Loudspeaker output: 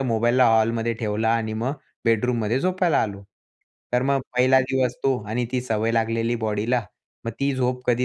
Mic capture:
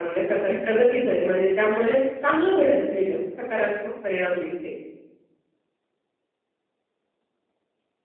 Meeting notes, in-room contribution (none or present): present